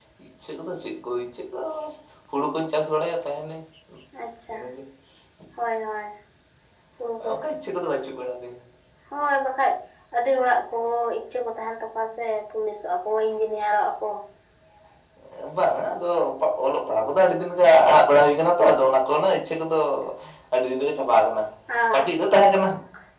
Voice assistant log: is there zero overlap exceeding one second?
Yes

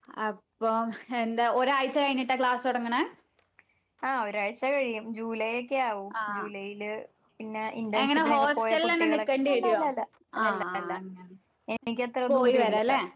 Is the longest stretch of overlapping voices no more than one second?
No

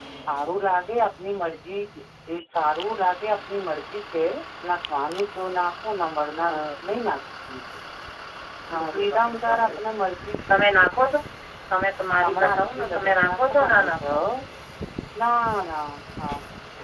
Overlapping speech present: Yes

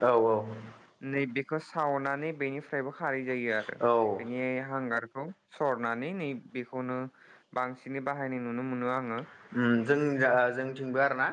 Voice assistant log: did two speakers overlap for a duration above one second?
No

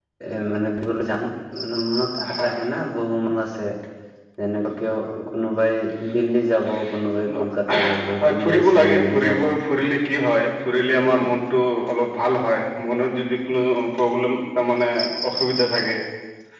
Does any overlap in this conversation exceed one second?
Yes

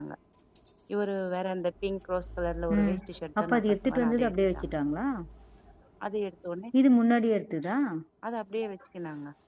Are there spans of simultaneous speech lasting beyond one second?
Yes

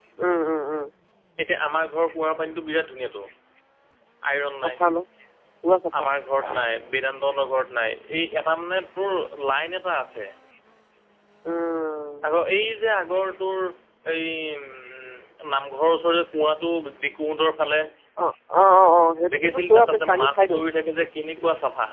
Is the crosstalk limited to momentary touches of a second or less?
No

